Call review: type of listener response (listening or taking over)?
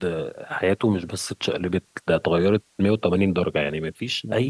listening